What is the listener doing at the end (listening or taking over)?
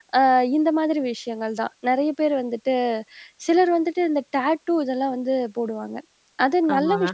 listening